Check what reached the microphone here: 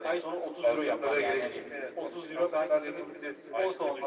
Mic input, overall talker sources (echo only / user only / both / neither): echo only